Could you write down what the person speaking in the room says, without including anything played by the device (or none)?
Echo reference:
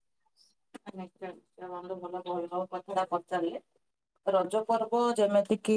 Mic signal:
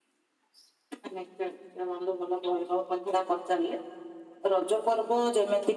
none